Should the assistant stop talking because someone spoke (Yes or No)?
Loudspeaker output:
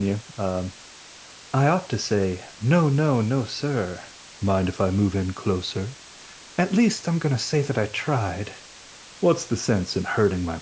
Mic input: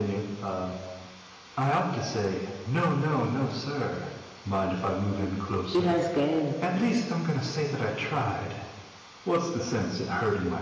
Yes